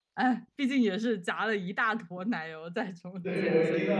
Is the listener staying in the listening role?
No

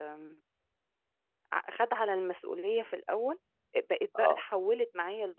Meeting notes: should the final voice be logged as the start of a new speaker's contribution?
No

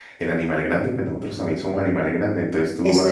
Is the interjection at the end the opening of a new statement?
No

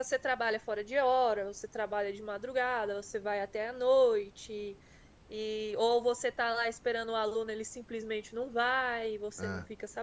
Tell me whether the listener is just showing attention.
Yes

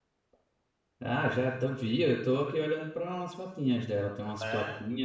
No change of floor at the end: No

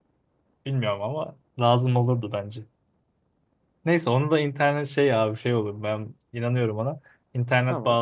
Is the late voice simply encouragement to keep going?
Yes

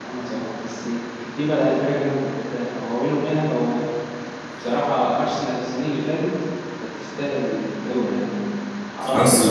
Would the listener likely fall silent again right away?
No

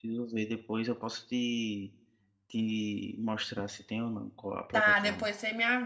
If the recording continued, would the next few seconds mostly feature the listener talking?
Yes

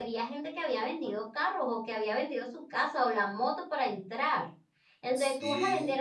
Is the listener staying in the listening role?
Yes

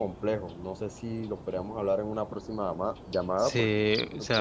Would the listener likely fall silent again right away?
No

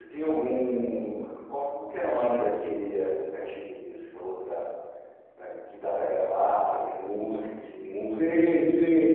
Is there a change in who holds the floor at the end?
Yes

